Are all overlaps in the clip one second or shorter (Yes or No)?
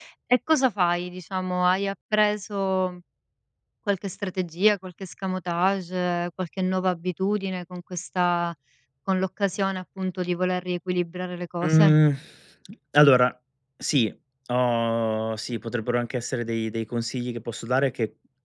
Yes